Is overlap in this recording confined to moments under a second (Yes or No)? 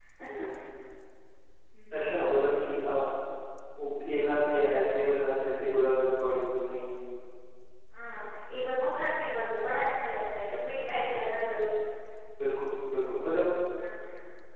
Yes